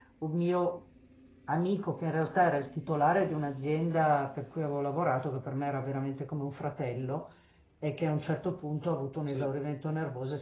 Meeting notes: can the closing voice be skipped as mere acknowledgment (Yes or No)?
Yes